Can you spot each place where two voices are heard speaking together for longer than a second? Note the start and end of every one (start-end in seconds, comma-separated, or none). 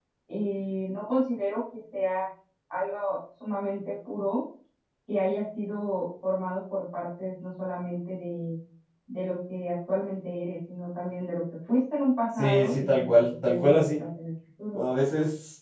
12.4-14.0